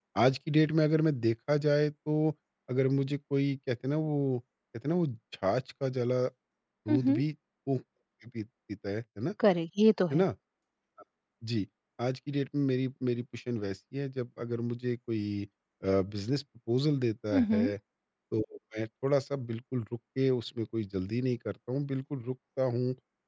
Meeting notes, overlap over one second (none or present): none